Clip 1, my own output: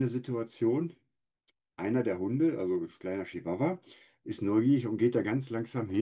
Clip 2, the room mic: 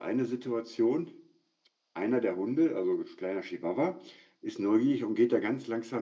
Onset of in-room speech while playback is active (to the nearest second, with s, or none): none